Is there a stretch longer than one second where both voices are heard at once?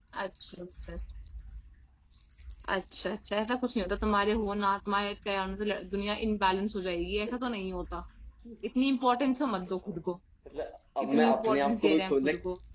Yes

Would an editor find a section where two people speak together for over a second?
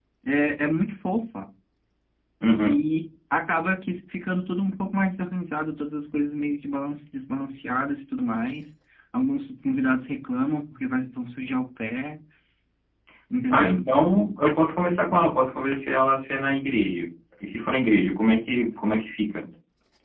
No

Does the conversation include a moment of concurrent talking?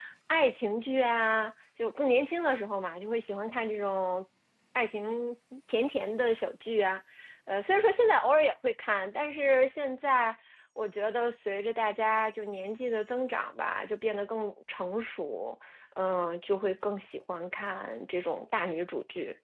No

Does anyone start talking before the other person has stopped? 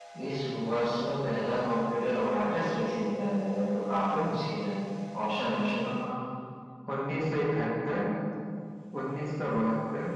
No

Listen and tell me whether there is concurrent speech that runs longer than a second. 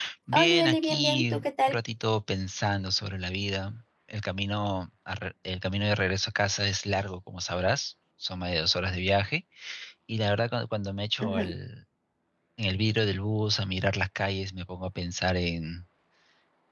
Yes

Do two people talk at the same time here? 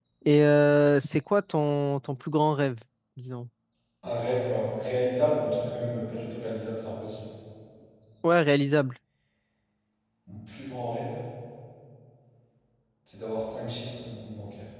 No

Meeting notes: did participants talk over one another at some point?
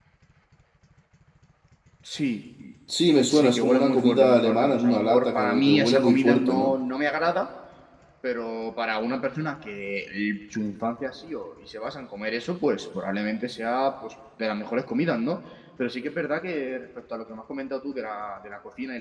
Yes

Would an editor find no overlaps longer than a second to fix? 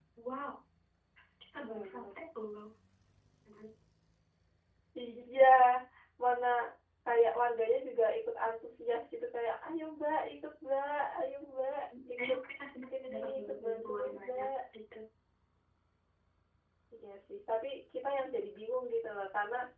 No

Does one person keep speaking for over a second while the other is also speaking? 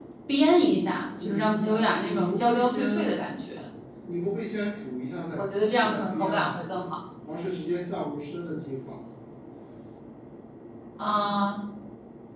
Yes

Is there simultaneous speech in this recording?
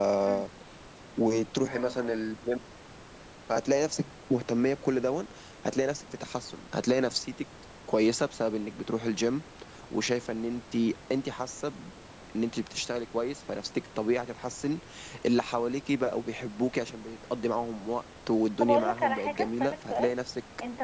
Yes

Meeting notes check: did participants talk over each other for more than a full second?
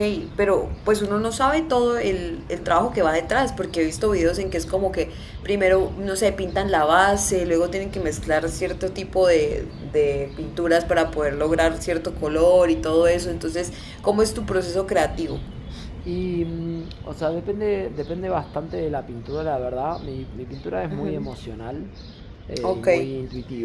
No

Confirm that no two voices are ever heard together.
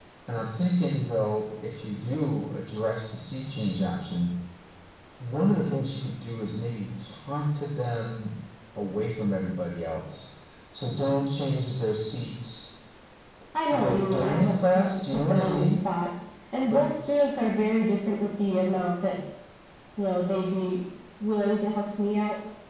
No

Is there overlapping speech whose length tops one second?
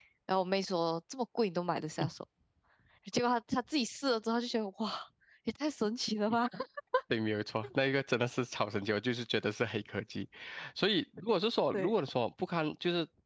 No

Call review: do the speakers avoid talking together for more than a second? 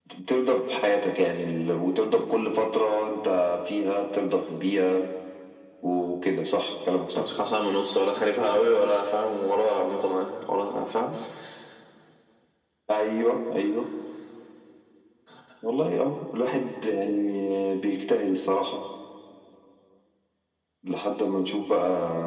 Yes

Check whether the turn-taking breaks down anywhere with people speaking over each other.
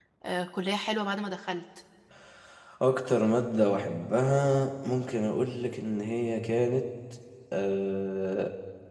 No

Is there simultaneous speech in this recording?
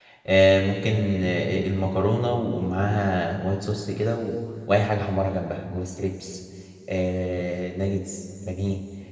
No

